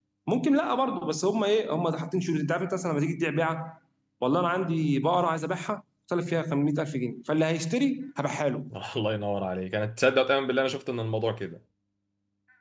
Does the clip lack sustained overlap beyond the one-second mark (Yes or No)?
Yes